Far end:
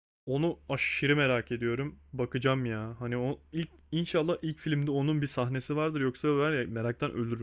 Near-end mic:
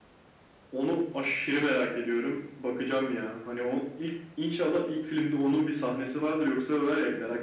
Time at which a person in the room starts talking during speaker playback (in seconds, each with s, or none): none